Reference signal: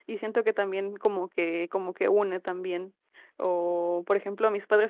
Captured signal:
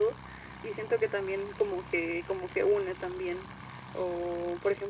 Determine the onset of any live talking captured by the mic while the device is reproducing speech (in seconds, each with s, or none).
none